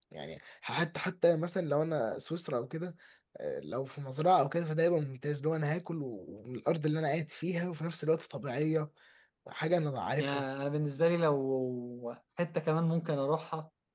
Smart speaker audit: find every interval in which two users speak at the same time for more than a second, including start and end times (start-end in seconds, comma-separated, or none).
none